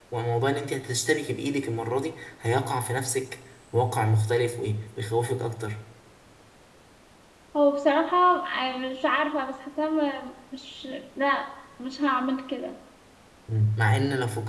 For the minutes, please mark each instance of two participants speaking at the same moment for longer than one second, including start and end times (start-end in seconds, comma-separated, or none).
none